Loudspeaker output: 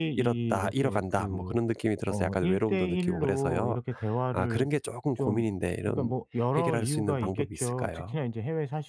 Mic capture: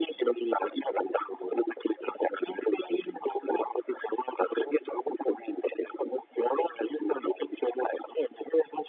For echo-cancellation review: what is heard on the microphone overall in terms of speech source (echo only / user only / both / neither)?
echo only